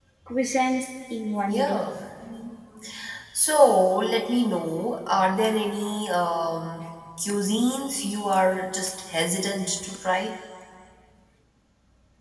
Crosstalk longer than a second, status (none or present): none